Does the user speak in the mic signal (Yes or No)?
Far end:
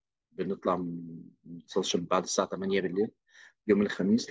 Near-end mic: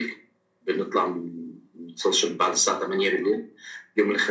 No